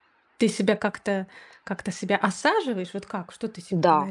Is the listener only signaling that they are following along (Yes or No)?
No